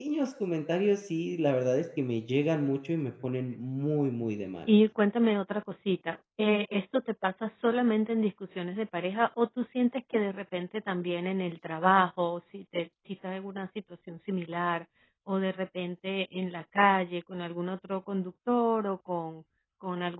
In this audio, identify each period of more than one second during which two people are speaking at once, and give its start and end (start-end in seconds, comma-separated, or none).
none